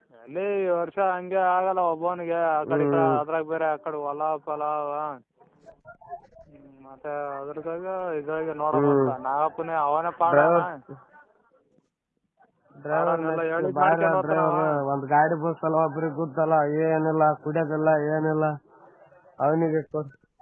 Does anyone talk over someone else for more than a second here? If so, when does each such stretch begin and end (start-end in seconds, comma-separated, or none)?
12.9-14.5